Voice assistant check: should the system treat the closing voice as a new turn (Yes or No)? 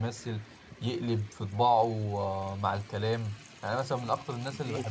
No